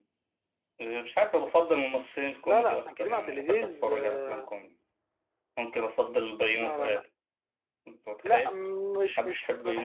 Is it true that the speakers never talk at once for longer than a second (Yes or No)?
No